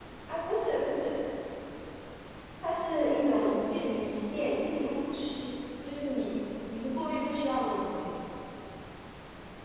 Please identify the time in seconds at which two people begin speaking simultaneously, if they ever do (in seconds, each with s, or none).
3.3 s